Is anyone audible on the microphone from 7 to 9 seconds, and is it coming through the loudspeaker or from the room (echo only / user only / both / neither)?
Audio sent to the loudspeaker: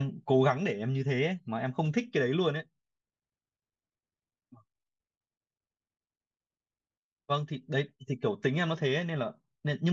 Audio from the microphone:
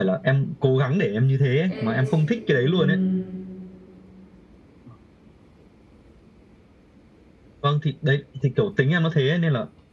echo only